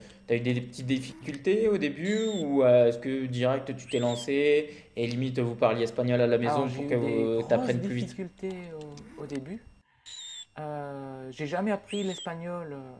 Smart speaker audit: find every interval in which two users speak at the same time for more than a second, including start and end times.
6.4-8.1

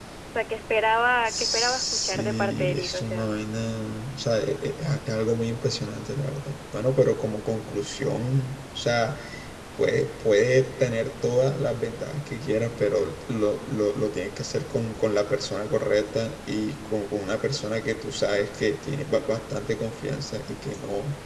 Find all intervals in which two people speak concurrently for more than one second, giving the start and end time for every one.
1.2-3.3

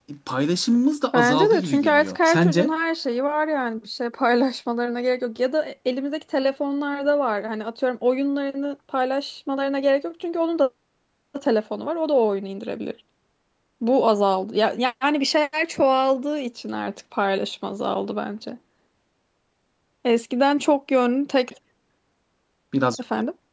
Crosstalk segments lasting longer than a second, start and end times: 1.1-2.7

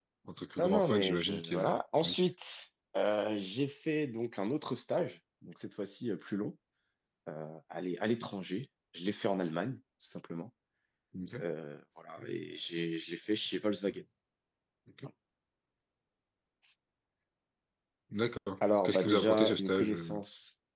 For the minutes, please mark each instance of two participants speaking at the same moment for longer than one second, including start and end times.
0.6-2.1, 18.8-20.1

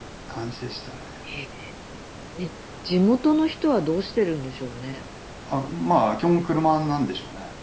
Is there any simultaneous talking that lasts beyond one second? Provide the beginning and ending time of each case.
none

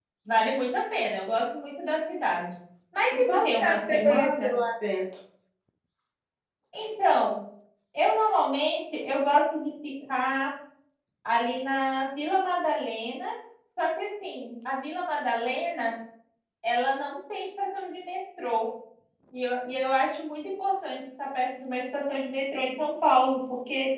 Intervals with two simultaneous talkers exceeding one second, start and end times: 3.2-4.5

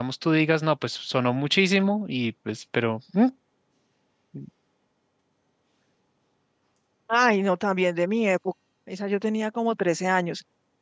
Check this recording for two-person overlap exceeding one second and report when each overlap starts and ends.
none

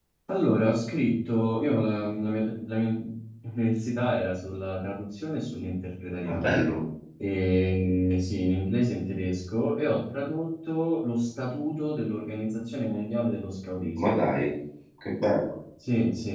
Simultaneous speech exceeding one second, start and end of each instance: none

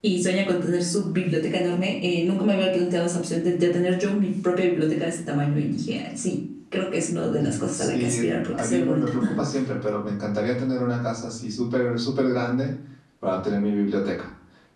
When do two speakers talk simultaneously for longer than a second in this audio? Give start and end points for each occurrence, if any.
7.8-9.1

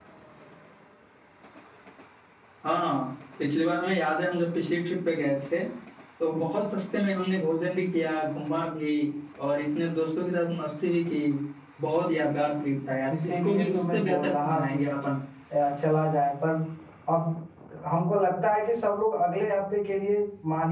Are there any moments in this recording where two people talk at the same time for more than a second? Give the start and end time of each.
13.2-14.8

